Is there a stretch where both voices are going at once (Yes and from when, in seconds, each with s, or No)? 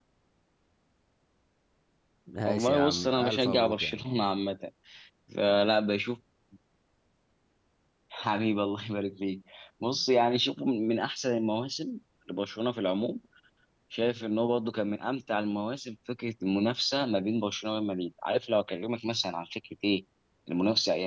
Yes, from 2.4 s